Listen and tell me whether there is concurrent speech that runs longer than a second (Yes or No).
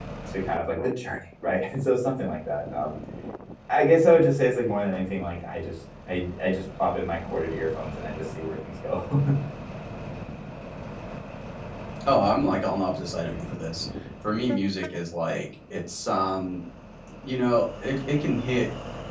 No